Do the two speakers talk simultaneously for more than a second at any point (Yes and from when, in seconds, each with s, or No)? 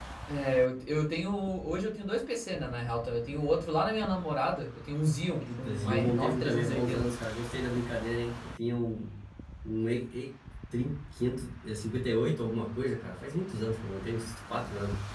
Yes, from 5.5 s